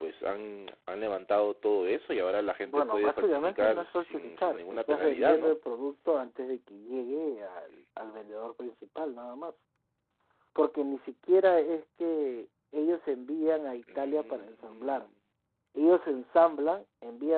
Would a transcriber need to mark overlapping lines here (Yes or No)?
Yes